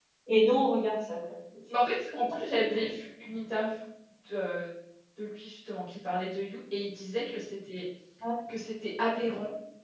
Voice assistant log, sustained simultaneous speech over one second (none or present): none